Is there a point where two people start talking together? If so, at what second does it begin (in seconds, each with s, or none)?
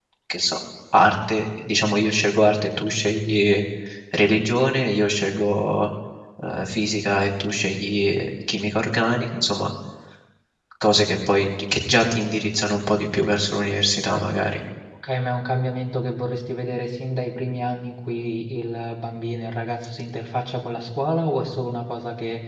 none